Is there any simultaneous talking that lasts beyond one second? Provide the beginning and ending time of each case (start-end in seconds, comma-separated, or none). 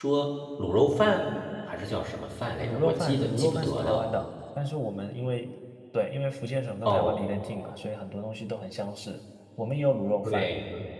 2.6-4.0